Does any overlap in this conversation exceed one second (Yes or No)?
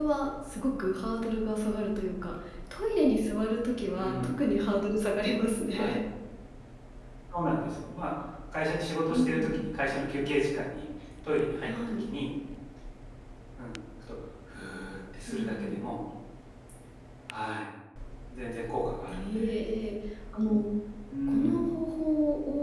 No